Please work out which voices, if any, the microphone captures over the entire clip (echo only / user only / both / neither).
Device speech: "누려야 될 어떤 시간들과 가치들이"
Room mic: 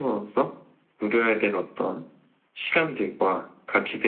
echo only